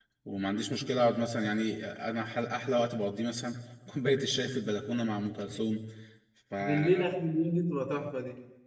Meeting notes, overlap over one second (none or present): none